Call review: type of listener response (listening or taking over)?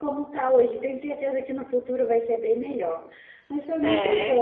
listening